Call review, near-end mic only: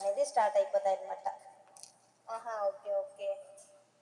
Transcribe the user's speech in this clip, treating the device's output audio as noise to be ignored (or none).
none